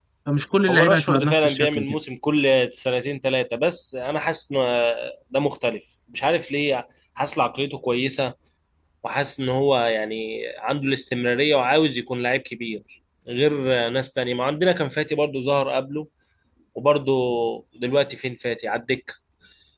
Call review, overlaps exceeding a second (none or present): present